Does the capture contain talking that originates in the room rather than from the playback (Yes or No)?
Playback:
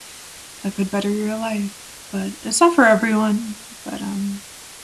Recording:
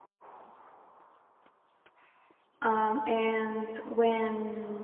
Yes